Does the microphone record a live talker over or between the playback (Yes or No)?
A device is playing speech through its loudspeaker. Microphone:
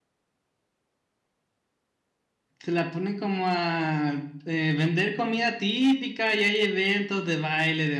Yes